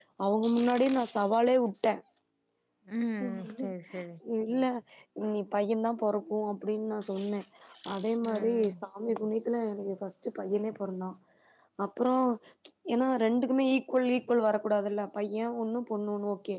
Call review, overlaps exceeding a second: none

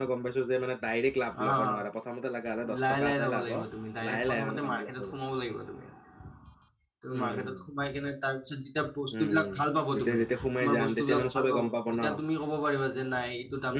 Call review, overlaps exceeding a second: present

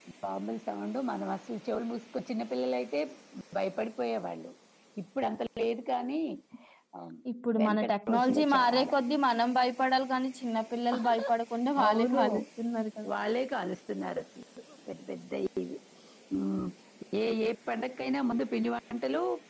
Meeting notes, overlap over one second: present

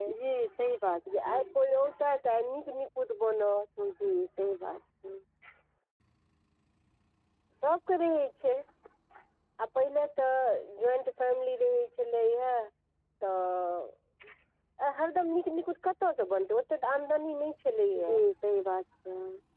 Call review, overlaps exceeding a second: none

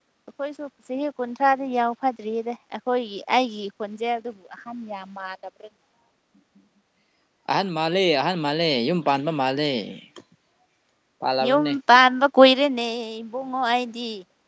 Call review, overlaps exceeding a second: none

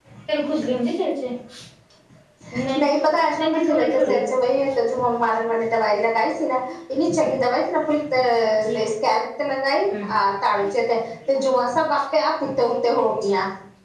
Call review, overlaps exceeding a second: present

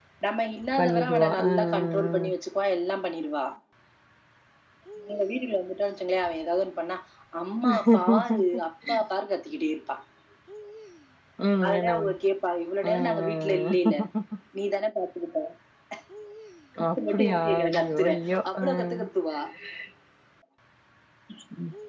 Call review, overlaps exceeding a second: present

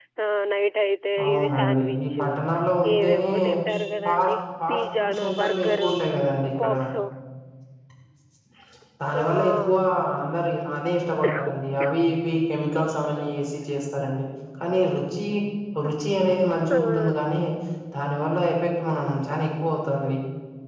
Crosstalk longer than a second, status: present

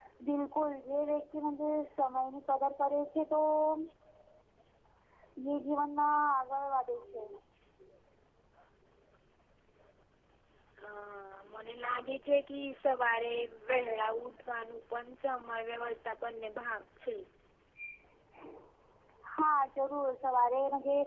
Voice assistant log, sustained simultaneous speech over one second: none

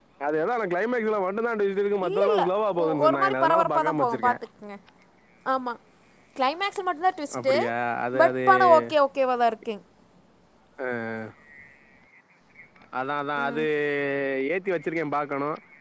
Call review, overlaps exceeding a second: present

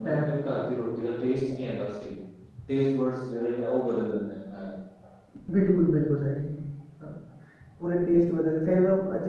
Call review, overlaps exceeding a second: none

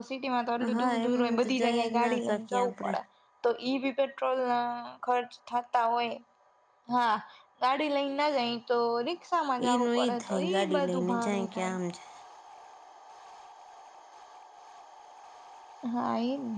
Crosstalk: present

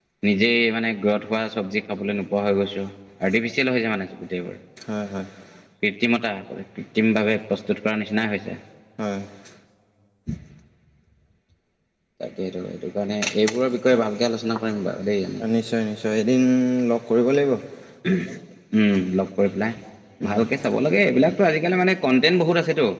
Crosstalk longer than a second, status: none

